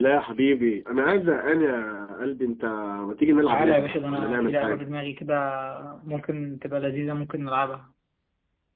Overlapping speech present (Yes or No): Yes